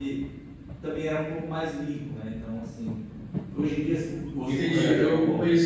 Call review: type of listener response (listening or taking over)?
taking over